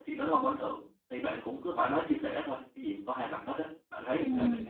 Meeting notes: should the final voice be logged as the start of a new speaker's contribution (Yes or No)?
Yes